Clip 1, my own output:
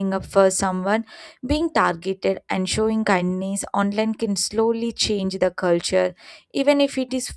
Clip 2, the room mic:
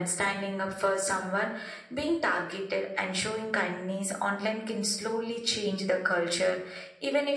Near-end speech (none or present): none